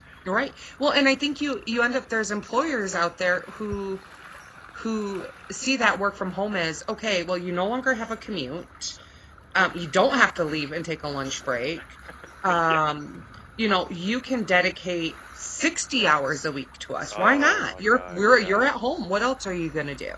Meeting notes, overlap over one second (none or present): present